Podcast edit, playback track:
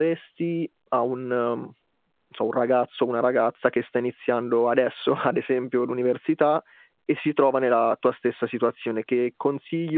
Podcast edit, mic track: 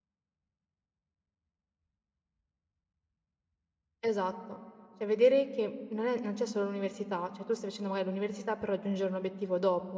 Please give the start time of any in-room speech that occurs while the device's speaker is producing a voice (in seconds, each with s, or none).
4.0 s